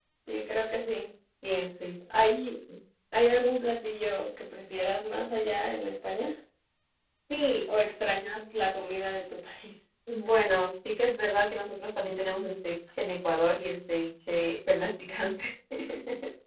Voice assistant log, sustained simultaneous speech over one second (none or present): none